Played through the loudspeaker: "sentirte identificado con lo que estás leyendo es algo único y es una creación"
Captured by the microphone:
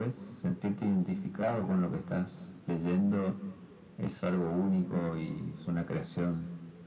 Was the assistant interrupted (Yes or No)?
No